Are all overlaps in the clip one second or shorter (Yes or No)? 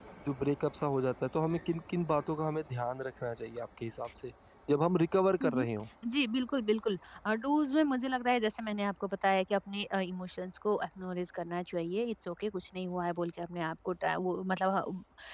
Yes